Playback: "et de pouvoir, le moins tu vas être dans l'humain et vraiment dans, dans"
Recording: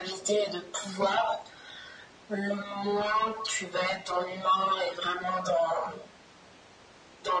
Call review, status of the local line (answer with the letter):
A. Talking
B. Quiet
B